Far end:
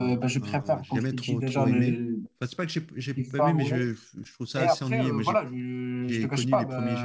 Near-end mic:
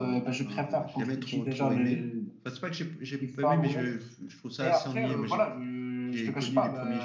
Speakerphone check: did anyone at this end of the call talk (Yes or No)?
No